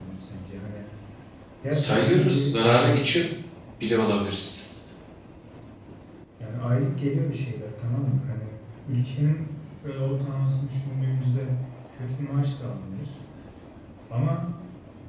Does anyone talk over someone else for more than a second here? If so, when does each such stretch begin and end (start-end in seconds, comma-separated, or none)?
1.7-3.1